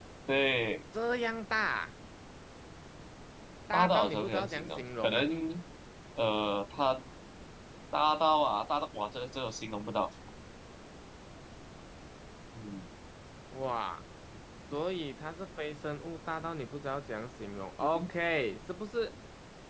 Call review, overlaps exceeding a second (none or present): present